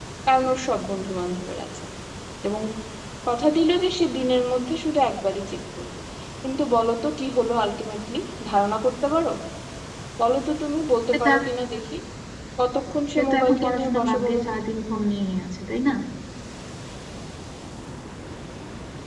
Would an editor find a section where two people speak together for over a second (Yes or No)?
Yes